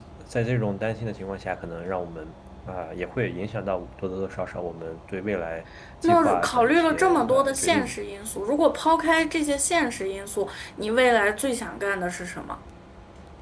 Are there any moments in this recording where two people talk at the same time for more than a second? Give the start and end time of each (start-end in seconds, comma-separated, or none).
6.0-8.0